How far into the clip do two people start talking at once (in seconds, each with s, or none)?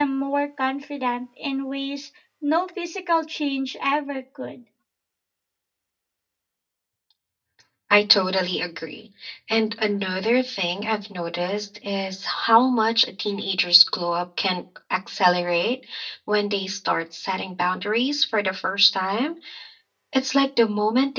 none